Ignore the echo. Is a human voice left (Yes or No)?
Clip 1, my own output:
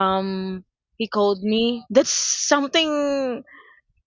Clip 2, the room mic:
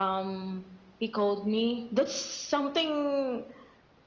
No